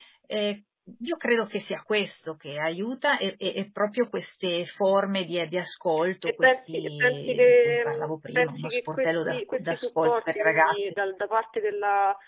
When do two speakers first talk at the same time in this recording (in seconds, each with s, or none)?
6.2 s